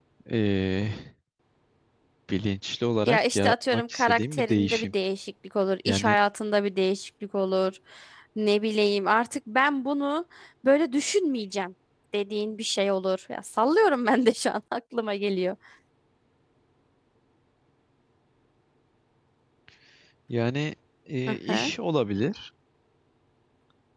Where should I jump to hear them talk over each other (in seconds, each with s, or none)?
3.0 s